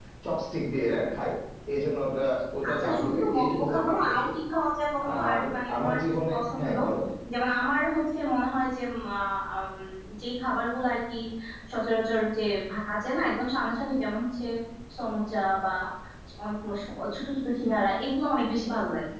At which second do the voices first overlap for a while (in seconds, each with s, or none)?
2.7 s